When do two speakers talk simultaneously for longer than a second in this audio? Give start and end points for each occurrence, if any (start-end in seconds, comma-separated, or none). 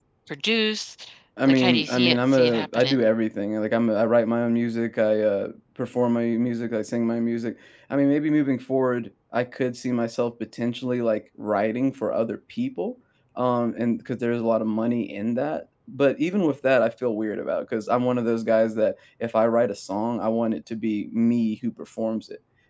1.5-3.0